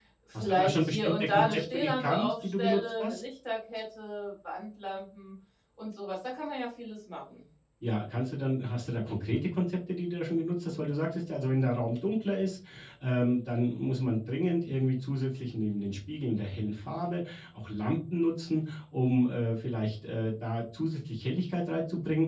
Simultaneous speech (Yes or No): Yes